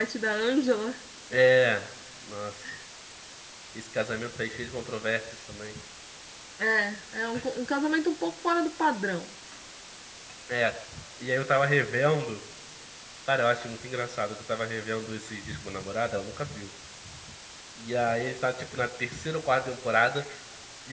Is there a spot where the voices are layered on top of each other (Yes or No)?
No